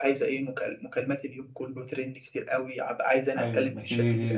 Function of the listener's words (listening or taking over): taking over